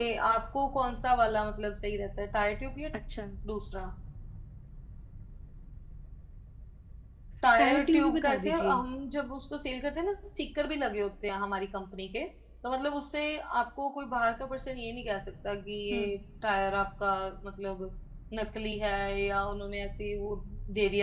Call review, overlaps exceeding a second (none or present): present